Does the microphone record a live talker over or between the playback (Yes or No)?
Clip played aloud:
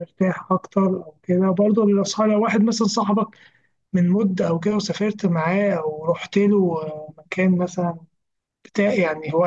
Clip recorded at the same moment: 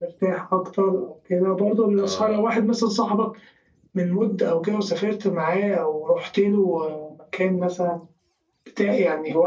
Yes